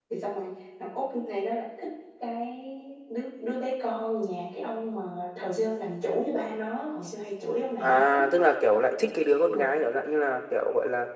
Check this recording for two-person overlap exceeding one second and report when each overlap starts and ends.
none

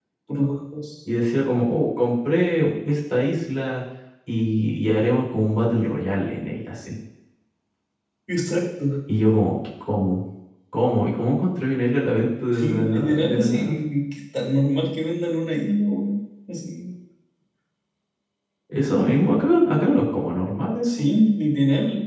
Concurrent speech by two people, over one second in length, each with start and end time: 12.5-14.0

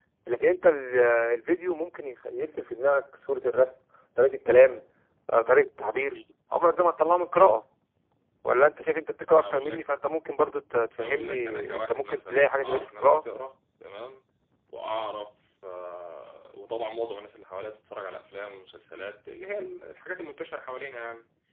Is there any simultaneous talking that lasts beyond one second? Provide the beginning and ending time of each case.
11.0-13.2

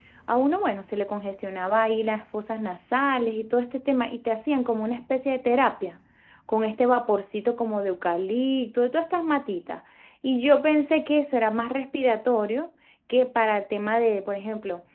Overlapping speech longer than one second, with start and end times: none

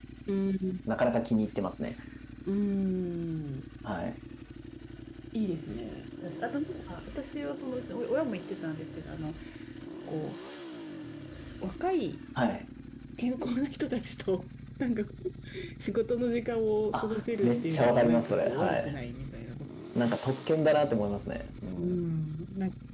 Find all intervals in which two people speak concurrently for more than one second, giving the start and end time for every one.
16.9-19.0

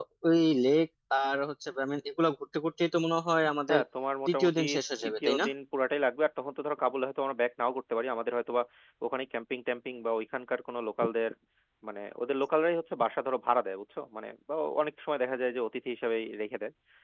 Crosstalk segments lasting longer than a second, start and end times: none

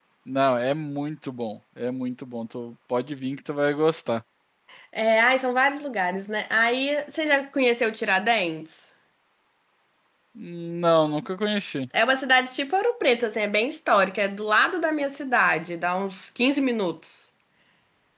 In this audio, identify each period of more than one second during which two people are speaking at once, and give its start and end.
none

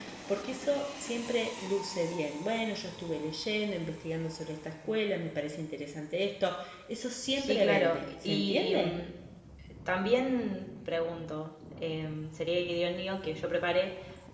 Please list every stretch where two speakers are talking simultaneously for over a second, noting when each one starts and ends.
7.3-9.0

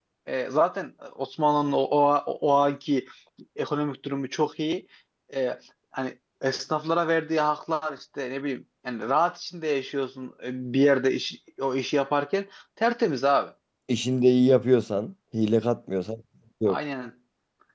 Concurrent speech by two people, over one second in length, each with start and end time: none

